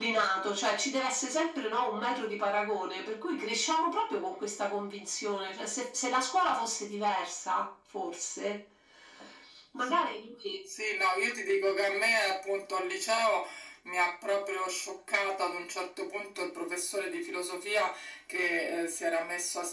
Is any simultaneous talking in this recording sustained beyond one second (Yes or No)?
No